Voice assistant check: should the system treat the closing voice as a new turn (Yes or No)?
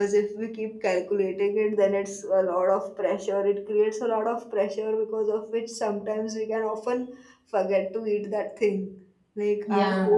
No